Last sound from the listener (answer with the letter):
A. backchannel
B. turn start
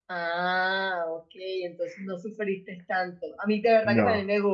A